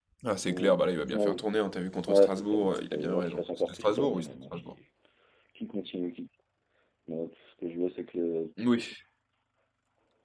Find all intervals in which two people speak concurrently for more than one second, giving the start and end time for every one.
2.1-4.7

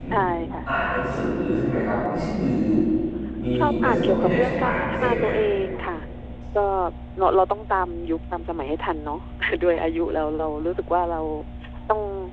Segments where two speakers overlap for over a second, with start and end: 3.6-5.3

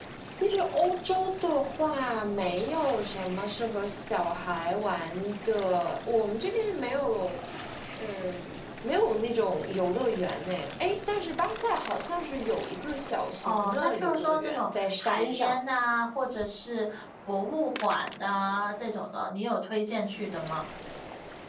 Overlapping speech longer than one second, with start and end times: 13.4-15.6

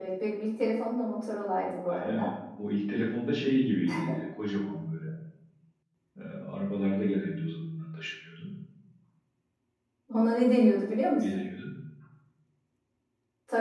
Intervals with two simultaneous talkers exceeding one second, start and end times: none

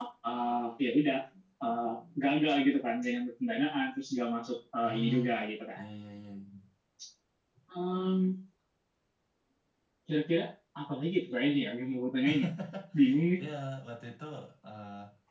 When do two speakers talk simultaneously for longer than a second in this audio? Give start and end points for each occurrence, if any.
none

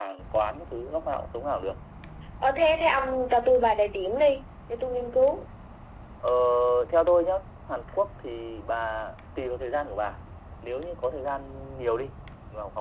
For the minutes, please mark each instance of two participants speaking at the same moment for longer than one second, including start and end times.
none

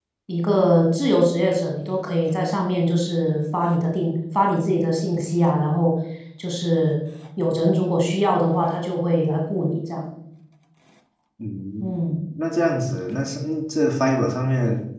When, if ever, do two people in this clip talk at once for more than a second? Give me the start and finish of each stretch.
none

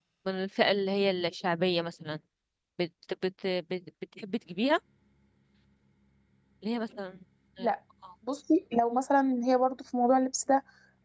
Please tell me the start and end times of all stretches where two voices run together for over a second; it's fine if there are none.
none

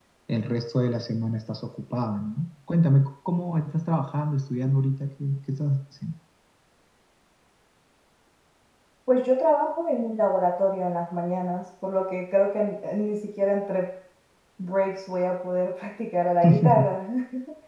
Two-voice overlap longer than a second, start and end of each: none

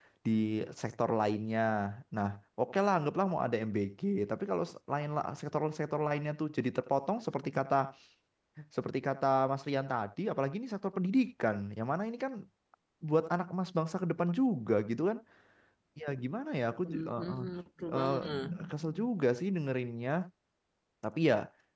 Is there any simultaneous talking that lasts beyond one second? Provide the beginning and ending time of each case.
none

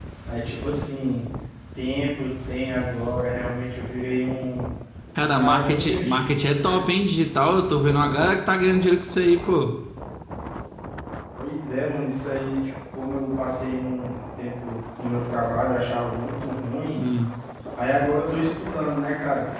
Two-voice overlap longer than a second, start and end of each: 5.3-6.8

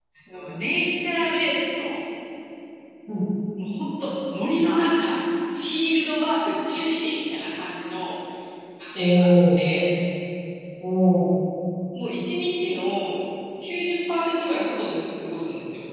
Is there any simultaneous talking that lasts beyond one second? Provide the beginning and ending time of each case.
none

